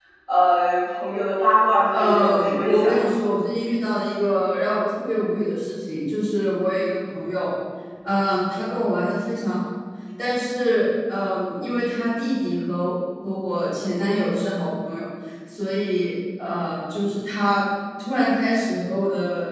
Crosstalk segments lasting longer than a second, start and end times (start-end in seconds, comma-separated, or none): 1.9-3.1